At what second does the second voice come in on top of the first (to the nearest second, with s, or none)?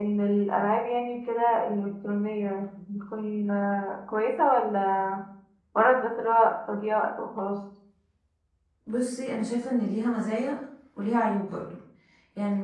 none